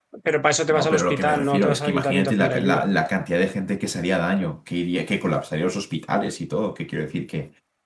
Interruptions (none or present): present